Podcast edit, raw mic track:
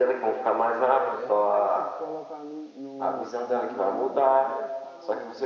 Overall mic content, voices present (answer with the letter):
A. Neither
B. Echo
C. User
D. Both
D